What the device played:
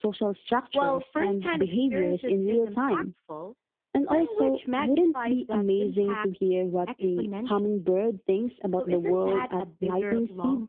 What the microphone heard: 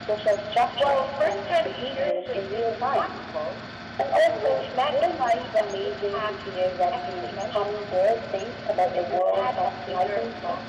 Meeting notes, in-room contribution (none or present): none